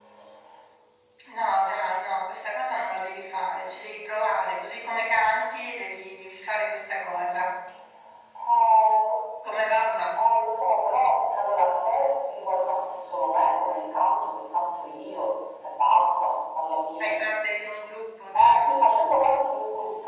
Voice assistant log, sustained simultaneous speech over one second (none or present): none